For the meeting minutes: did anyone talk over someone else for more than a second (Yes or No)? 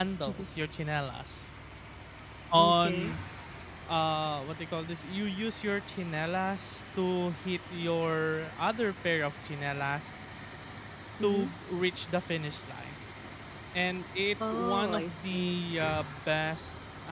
Yes